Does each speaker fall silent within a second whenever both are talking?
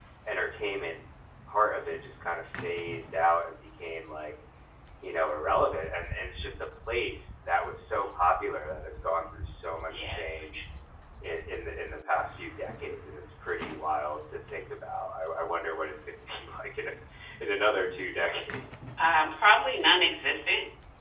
Yes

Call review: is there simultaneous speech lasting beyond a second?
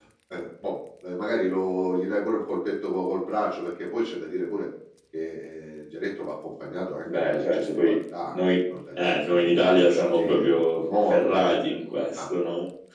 Yes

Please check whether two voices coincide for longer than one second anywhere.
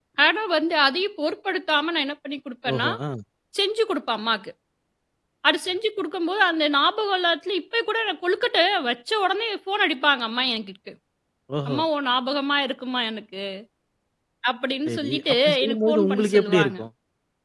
Yes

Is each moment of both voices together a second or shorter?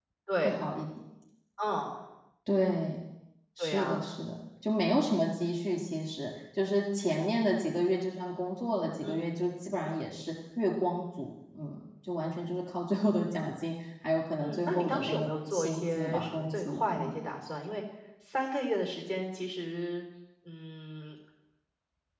No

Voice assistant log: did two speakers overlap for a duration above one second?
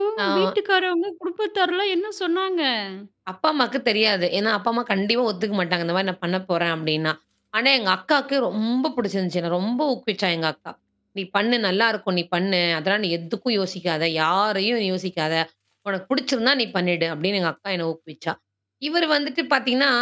No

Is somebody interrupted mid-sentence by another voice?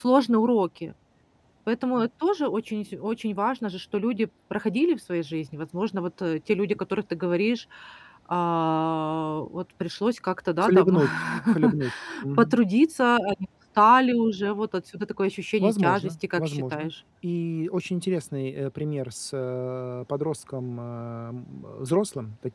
Yes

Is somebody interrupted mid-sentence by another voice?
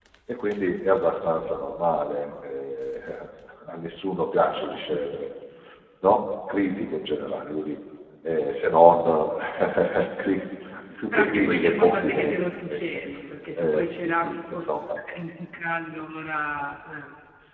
Yes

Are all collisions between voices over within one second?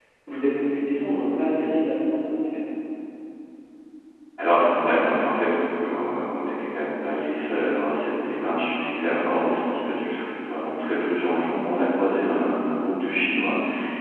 Yes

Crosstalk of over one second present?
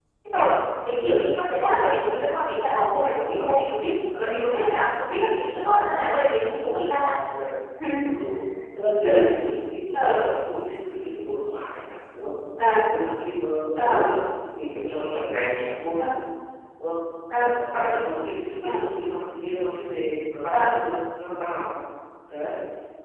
No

